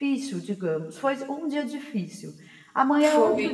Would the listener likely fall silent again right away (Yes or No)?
Yes